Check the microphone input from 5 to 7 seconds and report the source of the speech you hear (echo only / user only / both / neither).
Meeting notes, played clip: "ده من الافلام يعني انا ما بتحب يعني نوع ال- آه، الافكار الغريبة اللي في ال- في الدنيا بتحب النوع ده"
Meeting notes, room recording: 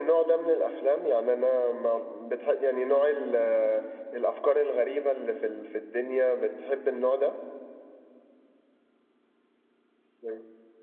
echo only